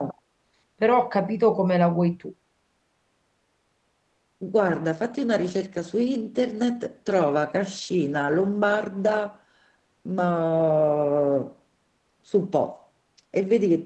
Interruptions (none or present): none